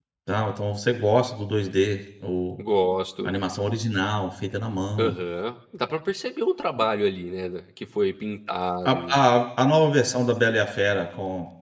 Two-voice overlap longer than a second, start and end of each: none

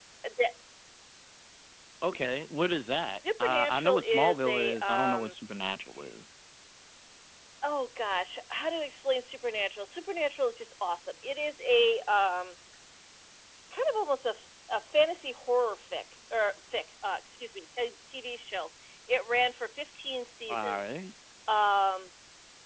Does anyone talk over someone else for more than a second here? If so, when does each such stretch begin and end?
3.4-5.3

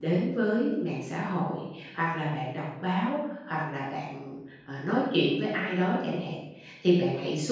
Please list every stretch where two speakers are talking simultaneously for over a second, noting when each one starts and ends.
none

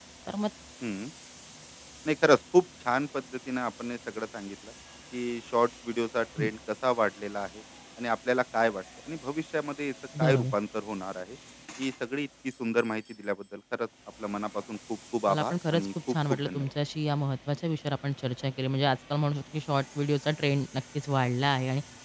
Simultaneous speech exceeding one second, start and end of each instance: 15.3-16.7

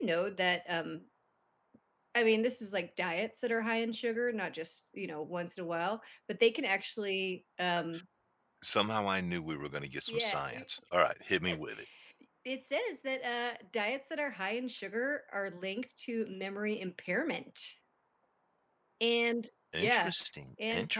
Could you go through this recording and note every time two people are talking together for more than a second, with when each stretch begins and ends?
none

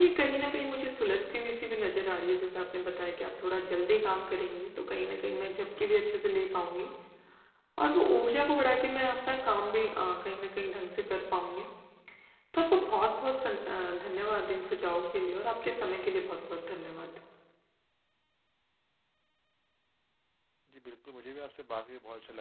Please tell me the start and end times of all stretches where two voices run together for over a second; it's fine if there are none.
none

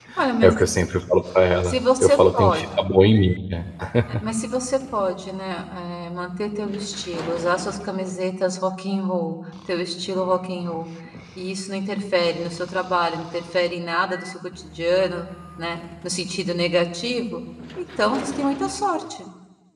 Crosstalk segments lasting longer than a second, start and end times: 1.6-2.9

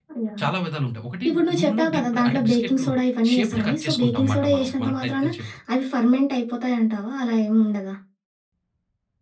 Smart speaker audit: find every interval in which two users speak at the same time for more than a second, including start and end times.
1.3-2.9, 3.3-5.3

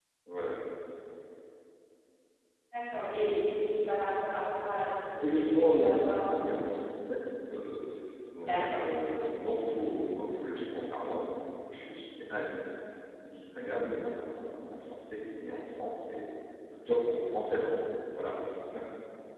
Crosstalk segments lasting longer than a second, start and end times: 5.2-6.6

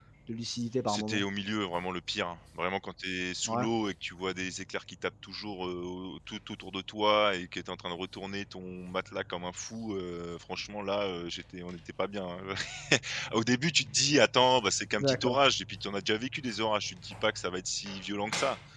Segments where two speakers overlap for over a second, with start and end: none

